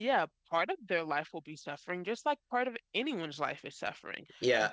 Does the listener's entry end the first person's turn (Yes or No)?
Yes